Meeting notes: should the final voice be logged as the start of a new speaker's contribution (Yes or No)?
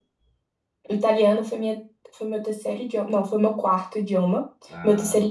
No